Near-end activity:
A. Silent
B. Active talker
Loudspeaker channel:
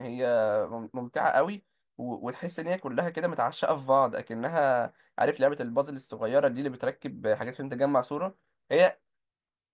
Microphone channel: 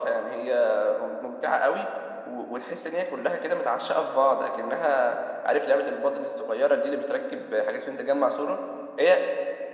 A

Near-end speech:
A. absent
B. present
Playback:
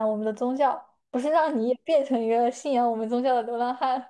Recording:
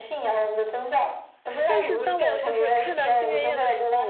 B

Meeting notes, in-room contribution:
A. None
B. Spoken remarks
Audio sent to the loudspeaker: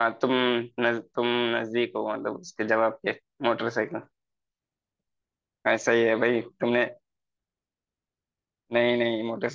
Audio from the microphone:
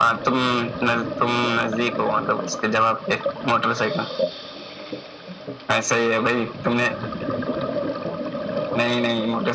A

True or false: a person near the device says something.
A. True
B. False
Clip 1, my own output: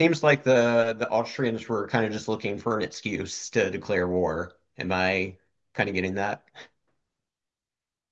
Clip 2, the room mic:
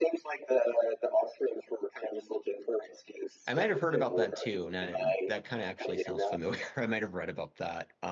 A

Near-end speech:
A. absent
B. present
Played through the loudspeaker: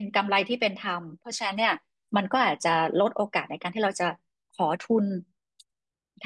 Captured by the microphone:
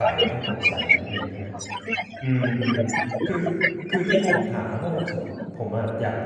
B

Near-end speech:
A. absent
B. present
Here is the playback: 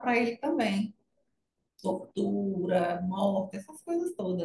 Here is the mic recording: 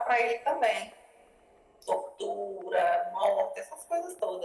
A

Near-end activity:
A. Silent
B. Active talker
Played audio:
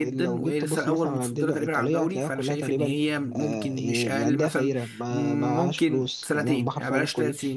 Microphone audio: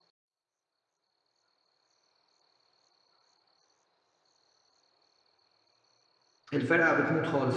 B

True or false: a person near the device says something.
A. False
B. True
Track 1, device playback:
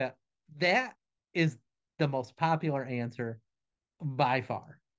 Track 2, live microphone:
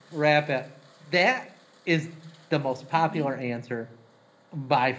B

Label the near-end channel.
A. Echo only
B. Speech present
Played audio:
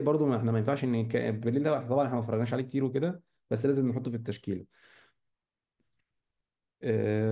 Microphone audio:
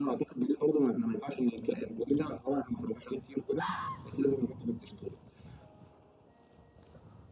A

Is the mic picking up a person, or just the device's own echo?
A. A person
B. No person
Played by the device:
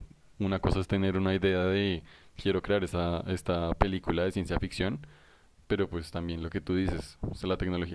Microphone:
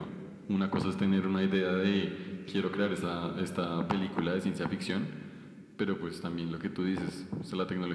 B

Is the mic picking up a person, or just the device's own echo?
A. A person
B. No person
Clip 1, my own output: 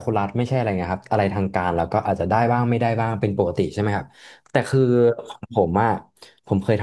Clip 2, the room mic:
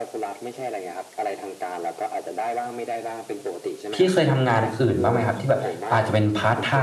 A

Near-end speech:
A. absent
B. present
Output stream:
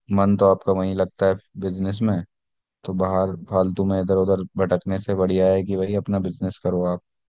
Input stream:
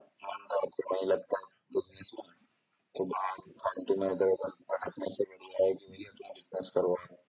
A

